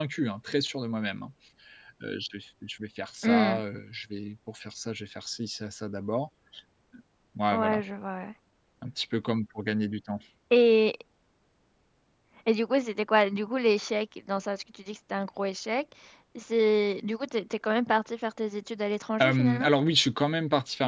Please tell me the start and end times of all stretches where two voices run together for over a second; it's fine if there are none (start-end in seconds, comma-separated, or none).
none